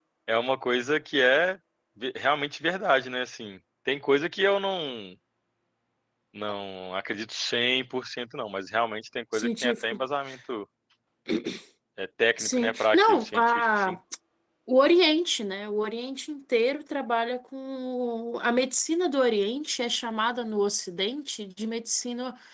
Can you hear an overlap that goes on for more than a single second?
Yes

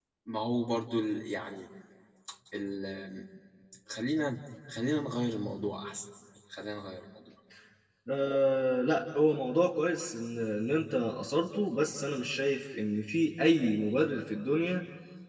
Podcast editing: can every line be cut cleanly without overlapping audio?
Yes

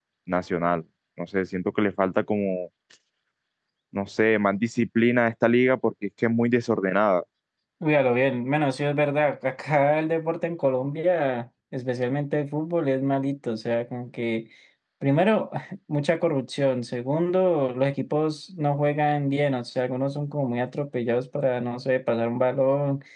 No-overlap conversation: Yes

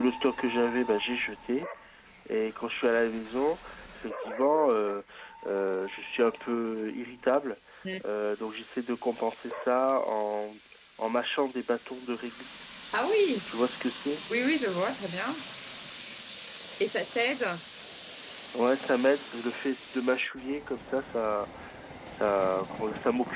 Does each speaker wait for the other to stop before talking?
Yes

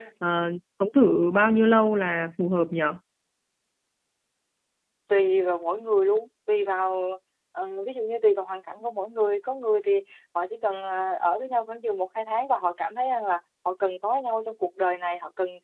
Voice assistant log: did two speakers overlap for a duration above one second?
No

